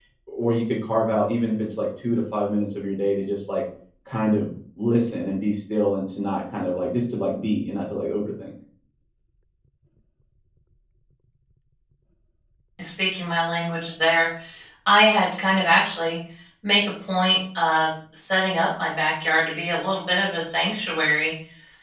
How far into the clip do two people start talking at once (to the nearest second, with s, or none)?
none